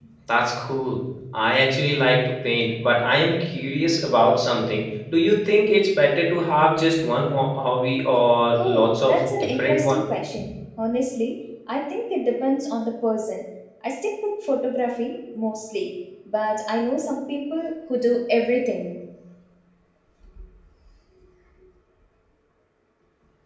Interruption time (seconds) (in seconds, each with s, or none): 8.6 s